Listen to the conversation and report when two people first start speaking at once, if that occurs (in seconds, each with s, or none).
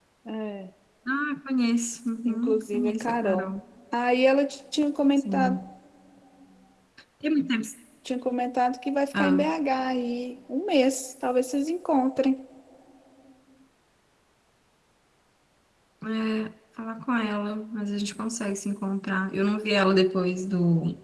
2.2 s